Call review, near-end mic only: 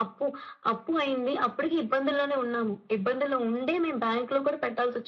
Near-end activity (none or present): none